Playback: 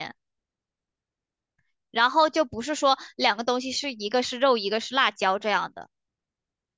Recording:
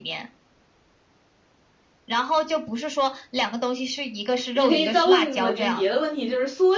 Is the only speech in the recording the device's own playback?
No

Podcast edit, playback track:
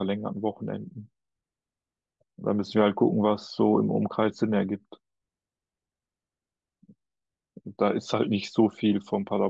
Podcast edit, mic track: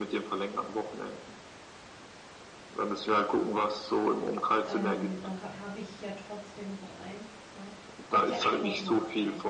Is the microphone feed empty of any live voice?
No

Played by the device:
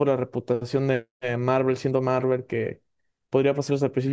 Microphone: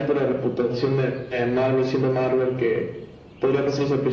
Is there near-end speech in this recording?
No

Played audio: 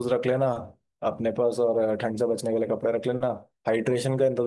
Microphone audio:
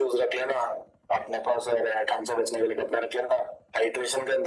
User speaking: No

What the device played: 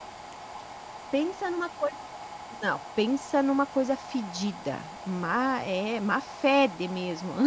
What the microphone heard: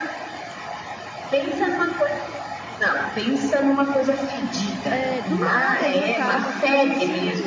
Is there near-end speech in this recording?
Yes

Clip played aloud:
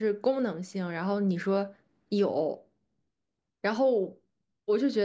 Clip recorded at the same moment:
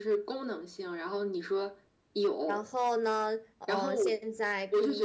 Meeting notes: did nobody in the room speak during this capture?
No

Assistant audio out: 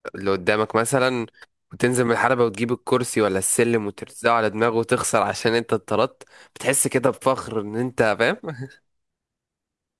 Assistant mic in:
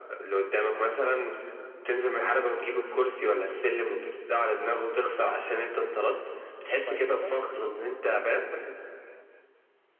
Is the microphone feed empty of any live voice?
No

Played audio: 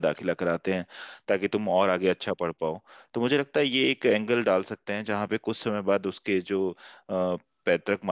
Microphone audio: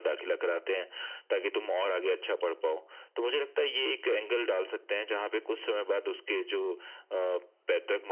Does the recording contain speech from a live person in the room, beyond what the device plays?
No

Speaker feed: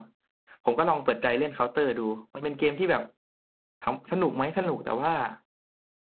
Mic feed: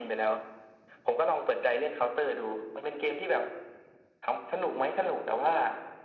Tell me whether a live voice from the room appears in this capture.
No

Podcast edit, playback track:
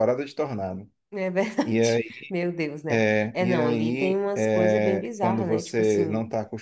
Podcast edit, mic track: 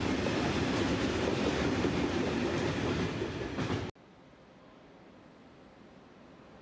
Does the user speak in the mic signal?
No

